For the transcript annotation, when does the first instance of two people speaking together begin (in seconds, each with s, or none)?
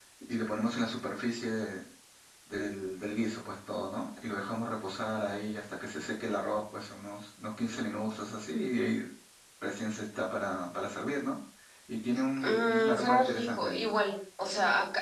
12.4 s